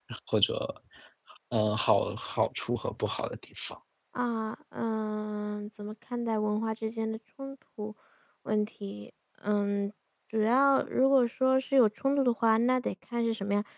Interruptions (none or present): none